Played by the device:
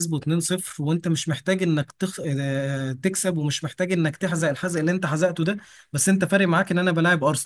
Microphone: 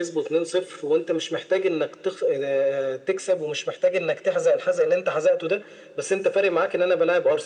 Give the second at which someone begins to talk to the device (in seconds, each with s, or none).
none